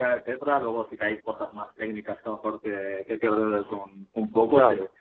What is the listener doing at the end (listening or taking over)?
listening